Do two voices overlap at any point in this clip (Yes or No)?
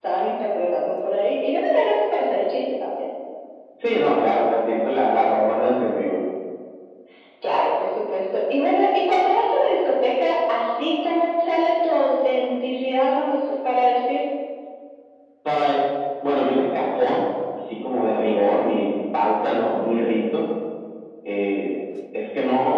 No